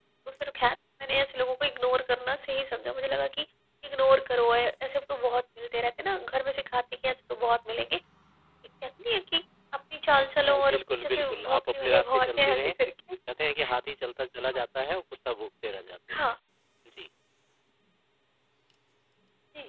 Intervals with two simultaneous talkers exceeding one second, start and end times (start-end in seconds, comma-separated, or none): 10.5-12.7